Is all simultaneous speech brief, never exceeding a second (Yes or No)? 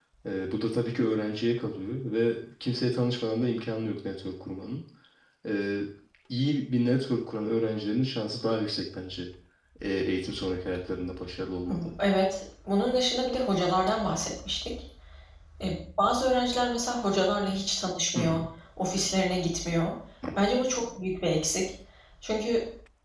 Yes